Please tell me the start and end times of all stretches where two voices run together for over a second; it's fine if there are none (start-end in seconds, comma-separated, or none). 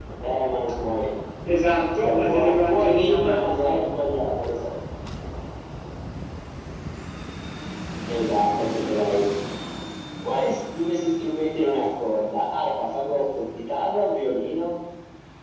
2.0-3.9